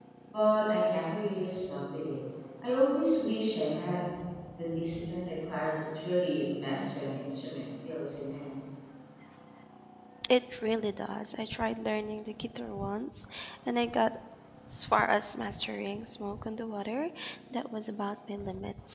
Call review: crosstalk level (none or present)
none